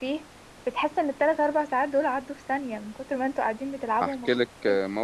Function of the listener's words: taking over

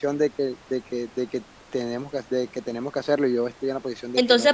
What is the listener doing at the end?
taking over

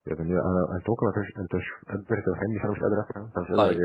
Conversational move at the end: taking over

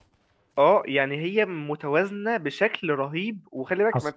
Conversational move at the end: taking over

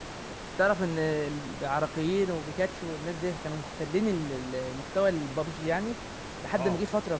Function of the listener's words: listening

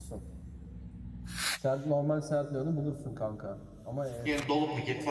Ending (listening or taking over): taking over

